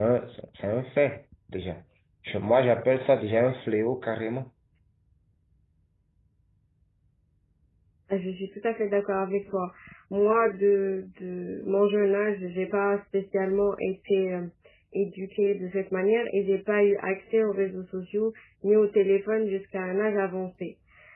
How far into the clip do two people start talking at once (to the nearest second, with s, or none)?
none